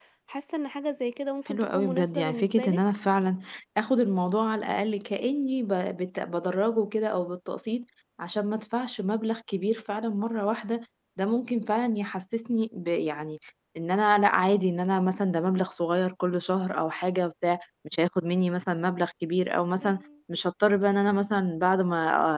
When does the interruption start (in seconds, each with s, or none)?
1.5 s